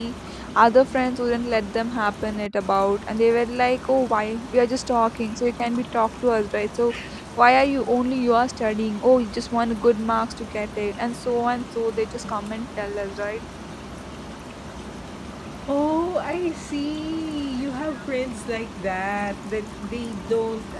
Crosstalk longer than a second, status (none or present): none